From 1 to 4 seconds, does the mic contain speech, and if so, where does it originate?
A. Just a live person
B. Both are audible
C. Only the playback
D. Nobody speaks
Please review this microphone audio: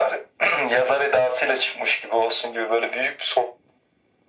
C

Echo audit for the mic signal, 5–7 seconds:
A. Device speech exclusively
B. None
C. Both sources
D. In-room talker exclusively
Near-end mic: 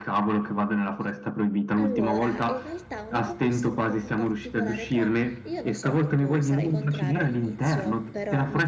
C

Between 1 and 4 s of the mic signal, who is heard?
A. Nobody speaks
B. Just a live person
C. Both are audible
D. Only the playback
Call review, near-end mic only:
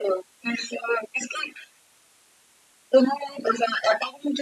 D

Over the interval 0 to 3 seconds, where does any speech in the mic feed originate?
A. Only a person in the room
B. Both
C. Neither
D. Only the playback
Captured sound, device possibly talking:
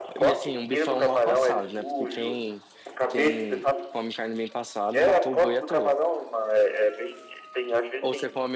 B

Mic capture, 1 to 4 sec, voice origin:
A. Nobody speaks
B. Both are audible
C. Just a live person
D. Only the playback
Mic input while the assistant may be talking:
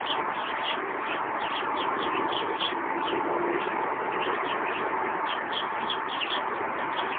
A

